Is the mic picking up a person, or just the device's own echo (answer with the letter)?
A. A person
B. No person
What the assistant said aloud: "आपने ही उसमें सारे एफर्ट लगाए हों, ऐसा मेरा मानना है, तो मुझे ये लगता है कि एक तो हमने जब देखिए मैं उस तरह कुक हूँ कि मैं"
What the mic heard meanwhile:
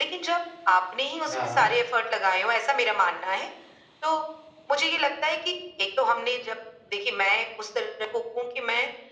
A